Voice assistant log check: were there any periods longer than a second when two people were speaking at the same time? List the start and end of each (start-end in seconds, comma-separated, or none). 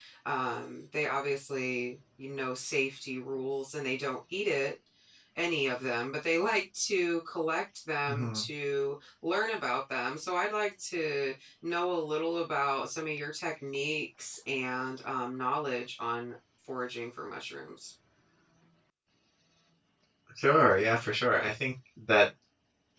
none